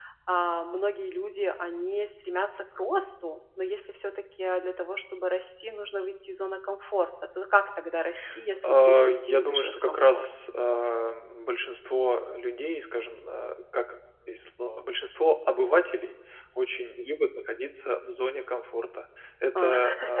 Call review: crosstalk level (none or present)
present